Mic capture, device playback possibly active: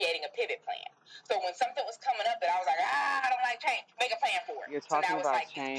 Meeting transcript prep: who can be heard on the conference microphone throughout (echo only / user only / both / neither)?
both